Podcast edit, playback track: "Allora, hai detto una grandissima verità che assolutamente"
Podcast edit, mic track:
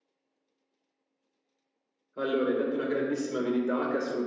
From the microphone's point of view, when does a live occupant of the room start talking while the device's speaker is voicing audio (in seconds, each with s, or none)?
none